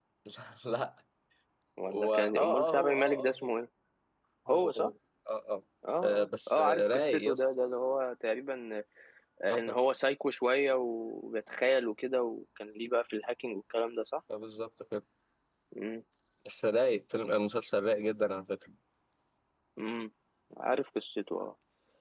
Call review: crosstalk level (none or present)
present